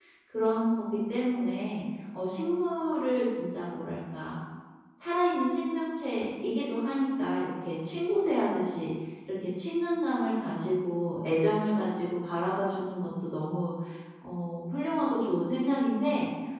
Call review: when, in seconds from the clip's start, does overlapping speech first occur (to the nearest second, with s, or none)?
none